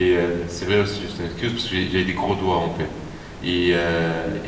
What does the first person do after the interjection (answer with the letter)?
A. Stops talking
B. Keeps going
B